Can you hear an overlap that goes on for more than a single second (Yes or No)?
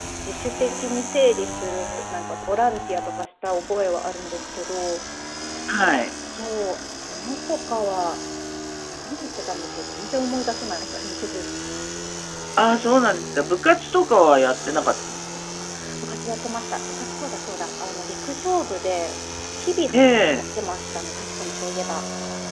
No